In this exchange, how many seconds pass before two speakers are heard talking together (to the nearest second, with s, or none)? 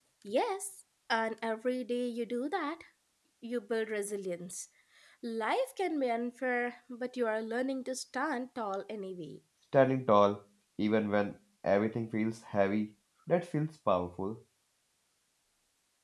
none